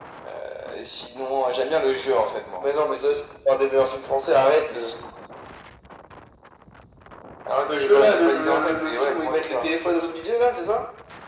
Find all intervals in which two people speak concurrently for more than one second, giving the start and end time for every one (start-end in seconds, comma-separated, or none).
7.7-9.7